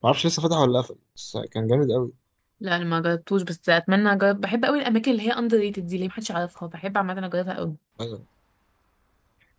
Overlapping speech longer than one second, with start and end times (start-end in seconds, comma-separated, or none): none